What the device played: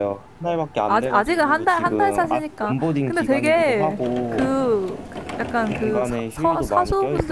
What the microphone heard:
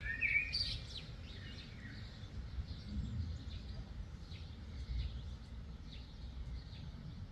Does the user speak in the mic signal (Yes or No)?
No